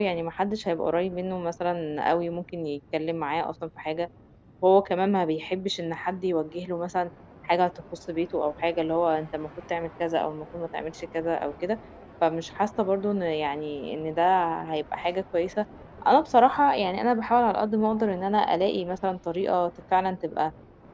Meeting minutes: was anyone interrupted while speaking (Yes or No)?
No